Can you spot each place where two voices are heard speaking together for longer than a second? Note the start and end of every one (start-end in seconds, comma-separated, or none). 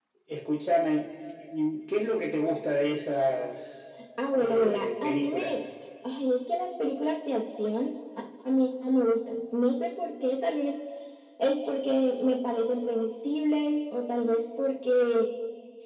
4.3-5.6